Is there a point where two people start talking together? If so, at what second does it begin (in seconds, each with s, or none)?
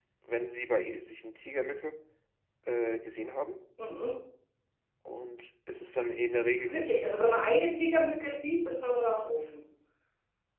none